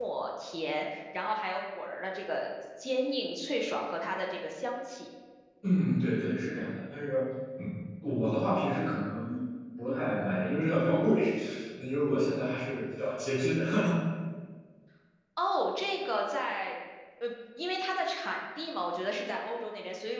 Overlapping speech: No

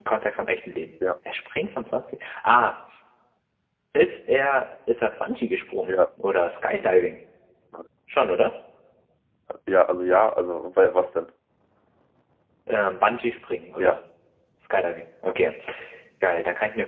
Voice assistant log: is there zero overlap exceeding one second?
Yes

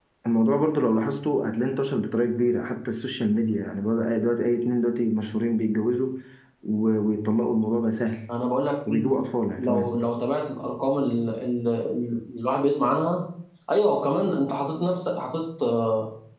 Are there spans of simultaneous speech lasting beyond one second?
No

